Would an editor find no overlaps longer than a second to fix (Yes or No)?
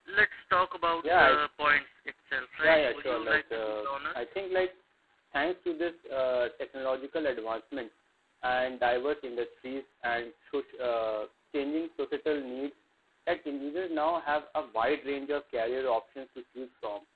No